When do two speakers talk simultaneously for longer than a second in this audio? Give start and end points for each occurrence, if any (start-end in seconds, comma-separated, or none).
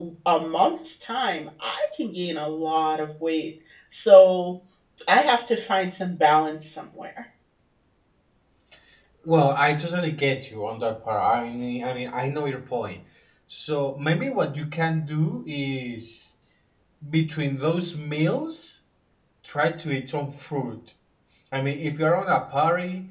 none